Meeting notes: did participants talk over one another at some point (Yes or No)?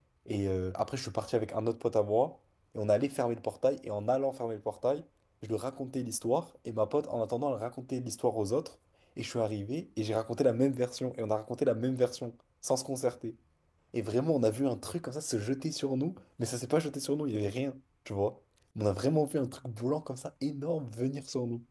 No